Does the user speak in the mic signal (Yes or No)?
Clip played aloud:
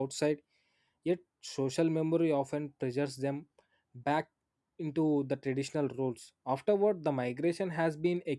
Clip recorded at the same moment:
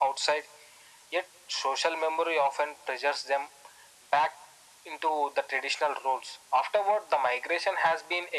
No